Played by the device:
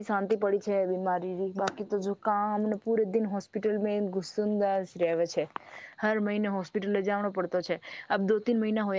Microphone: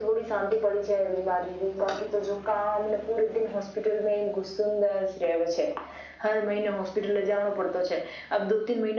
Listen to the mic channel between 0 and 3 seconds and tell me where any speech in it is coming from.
echo only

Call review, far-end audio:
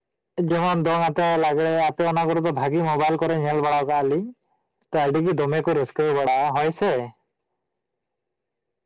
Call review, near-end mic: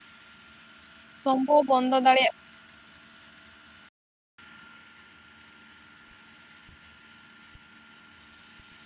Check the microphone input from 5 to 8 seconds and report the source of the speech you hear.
neither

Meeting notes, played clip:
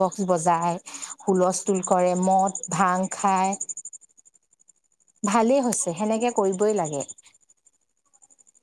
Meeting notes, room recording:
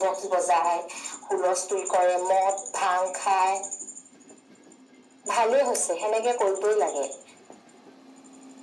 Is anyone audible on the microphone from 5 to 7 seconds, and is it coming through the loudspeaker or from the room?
echo only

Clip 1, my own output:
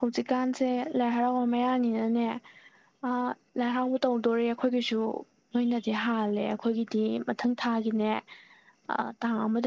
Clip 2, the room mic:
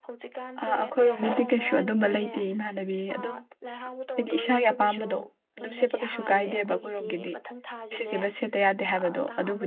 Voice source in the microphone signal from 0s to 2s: both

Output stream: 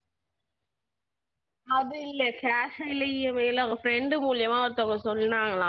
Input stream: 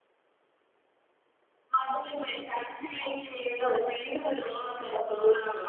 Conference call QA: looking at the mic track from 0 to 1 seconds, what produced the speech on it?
neither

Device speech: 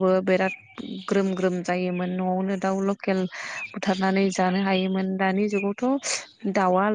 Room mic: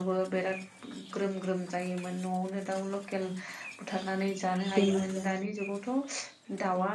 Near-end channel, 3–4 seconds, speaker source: echo only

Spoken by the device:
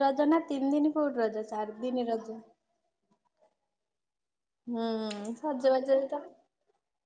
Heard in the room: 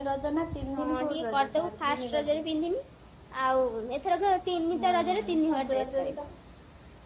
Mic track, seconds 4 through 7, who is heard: both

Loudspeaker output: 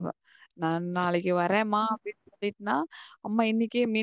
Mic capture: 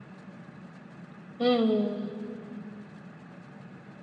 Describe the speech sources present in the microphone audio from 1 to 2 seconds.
user only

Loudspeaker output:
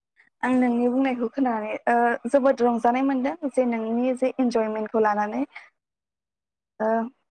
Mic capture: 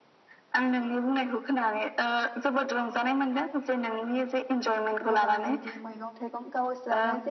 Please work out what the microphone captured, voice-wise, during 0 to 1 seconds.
echo only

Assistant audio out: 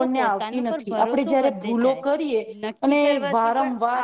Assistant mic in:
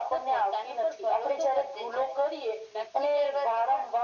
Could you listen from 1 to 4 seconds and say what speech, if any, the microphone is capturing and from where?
echo only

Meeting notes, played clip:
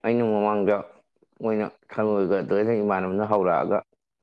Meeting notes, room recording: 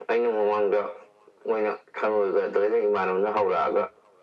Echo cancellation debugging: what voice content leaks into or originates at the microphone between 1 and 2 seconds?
echo only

